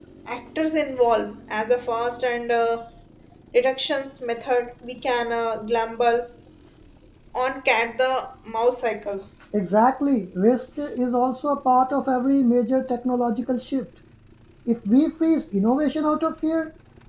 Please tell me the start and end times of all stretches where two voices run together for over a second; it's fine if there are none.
none

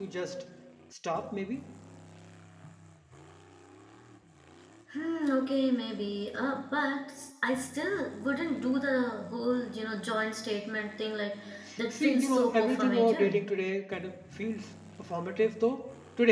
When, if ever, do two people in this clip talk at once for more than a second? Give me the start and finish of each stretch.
11.9-13.4

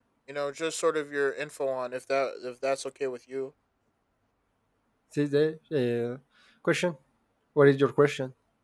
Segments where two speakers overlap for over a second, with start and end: none

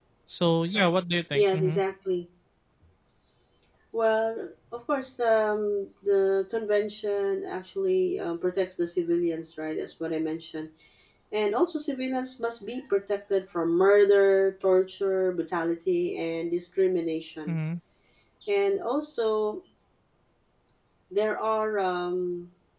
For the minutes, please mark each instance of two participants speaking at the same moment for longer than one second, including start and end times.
none

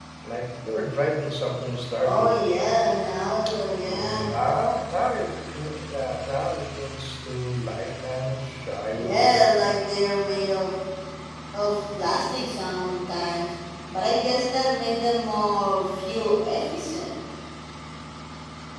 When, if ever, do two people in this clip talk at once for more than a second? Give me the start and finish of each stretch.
none

